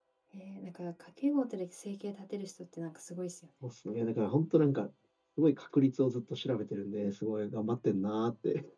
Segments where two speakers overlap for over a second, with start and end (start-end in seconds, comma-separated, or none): none